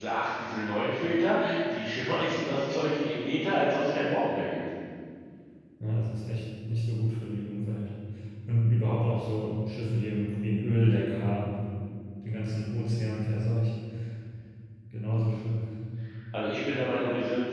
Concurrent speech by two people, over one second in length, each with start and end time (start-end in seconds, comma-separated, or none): none